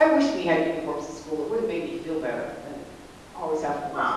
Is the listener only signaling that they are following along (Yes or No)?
No